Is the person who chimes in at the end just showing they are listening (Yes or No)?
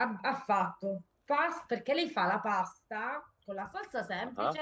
Yes